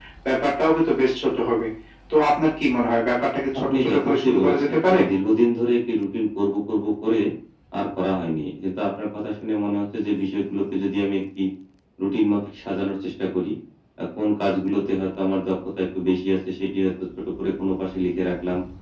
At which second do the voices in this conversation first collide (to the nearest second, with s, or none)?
4 s